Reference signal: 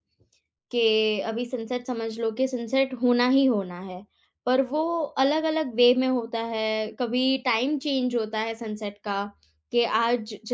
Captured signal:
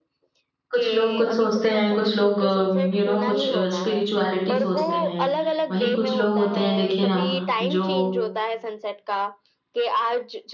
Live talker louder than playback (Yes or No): Yes